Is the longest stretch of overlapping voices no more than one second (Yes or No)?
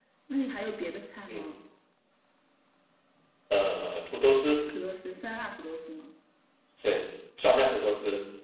Yes